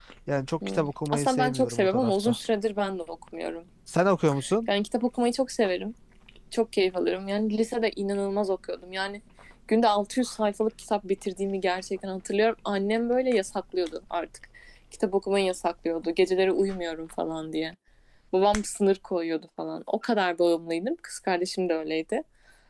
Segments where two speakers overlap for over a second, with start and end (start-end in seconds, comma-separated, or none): 0.7-2.4